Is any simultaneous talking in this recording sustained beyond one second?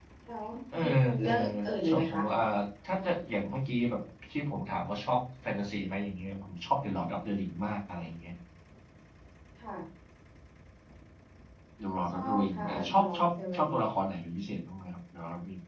Yes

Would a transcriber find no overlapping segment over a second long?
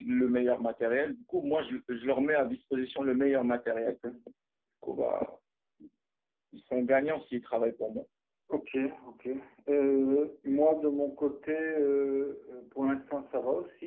Yes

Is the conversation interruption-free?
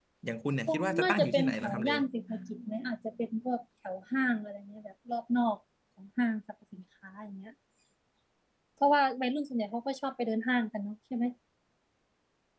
No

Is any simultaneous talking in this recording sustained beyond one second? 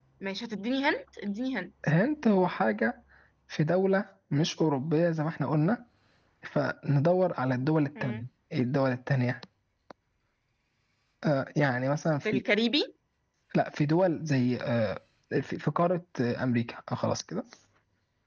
No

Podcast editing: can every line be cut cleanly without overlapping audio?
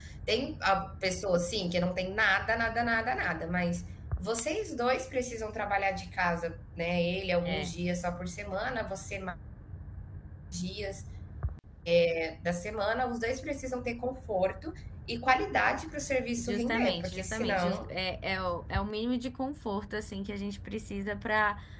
No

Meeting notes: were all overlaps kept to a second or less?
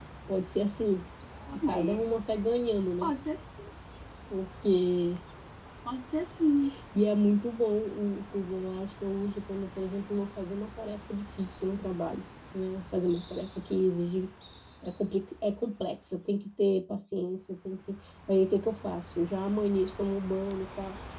Yes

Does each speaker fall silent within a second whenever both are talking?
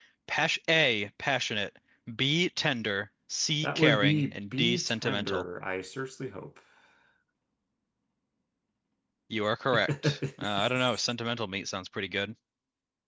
No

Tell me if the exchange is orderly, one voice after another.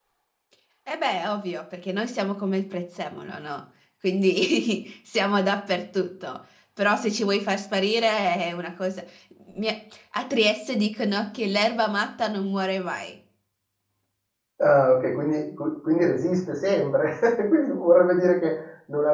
Yes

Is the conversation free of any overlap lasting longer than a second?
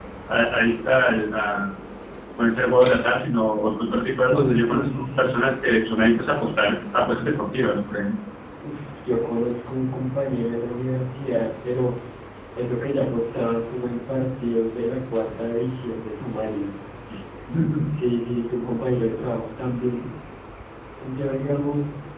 No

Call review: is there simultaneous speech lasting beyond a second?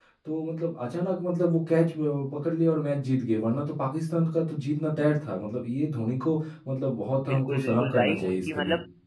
Yes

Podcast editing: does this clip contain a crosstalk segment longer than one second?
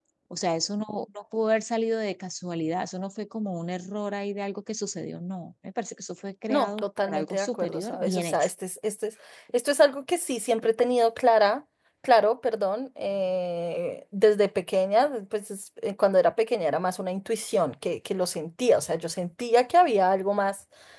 Yes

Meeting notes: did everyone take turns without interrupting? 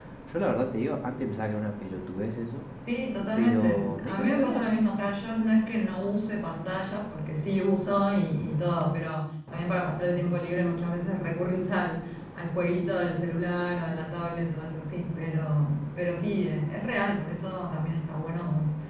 No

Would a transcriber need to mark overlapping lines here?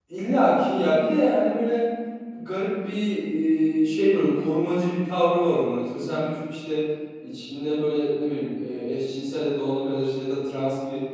No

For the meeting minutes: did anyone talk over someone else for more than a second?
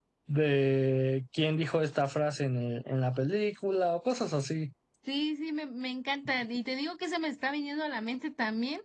No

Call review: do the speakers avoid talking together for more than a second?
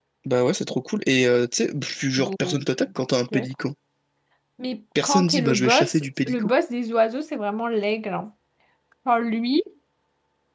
No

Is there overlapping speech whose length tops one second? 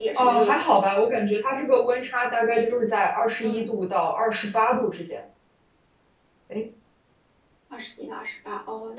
No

